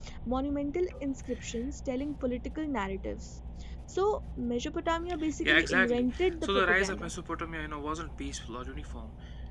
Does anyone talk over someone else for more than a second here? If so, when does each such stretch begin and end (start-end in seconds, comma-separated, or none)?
5.4-7.1